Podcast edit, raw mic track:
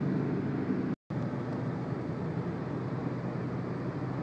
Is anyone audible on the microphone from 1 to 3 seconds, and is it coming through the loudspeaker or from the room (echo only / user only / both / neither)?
neither